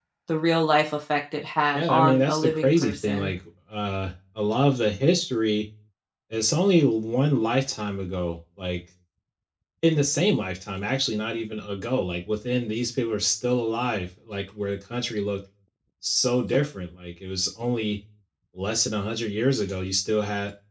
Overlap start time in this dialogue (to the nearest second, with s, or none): 2 s